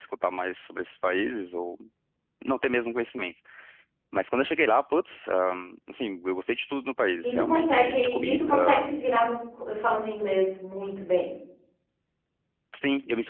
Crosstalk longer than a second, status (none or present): present